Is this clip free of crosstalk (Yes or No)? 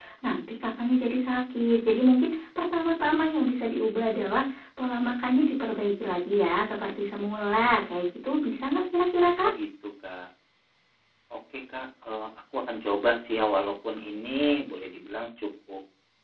Yes